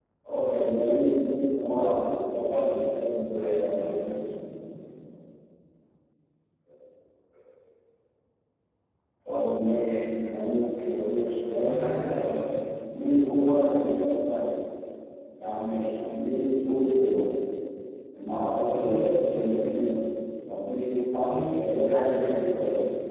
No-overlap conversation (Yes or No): No